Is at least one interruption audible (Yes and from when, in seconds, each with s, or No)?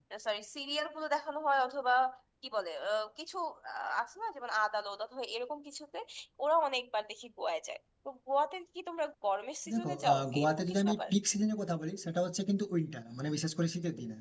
Yes, from 9.7 s